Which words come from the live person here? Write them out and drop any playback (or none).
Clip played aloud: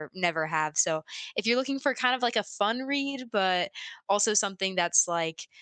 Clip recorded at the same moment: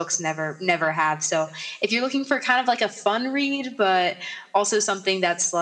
none